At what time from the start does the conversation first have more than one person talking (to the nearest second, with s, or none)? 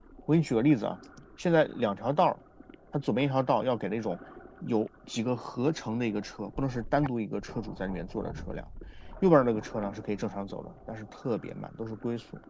none